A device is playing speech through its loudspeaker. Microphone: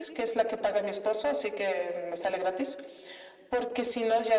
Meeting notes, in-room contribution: none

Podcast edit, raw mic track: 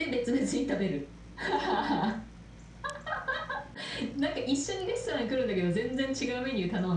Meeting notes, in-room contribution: none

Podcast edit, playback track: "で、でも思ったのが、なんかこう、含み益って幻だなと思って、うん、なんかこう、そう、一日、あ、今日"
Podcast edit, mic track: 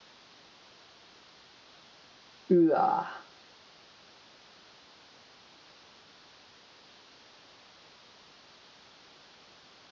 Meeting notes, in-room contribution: present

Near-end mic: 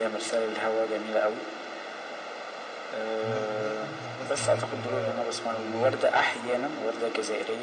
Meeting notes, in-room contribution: present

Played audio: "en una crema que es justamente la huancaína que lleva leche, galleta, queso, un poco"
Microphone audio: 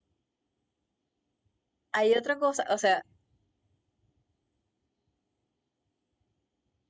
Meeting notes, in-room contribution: present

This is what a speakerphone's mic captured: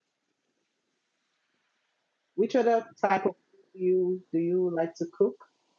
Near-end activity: present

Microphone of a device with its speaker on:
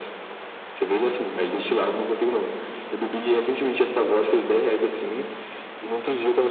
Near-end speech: none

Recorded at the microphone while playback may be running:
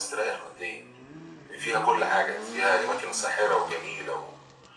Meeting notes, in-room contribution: none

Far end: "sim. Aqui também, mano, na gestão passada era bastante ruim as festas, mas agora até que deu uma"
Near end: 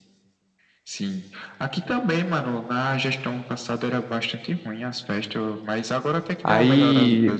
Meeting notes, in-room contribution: present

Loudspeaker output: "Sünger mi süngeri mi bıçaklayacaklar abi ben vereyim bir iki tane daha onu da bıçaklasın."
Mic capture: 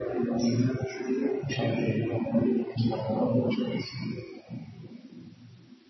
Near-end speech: none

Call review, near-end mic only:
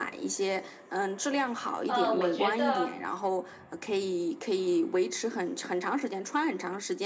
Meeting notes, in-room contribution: present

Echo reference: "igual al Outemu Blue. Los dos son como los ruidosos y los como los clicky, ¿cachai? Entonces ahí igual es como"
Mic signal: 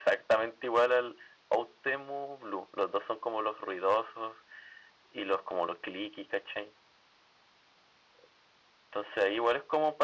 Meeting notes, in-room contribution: none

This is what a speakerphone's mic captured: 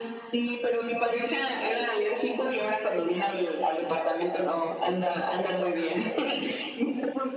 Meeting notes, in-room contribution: none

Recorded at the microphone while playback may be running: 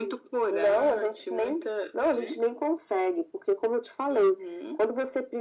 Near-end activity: none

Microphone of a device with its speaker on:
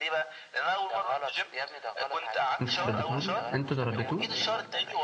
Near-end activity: present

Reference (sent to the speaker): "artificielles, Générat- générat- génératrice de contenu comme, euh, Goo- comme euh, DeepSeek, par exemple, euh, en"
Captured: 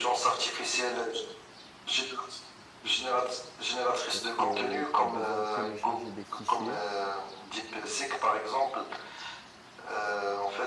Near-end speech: present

